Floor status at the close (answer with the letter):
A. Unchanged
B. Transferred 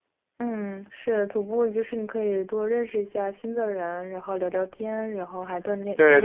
B